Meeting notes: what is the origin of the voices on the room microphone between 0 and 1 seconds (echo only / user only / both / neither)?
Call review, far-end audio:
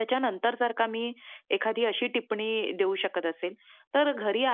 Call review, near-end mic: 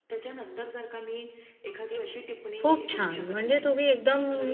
echo only